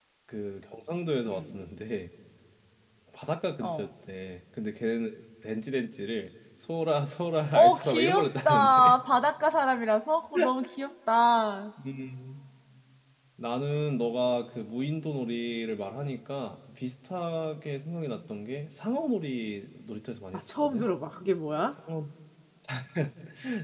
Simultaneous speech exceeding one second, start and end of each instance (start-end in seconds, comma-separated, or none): 7.5-8.9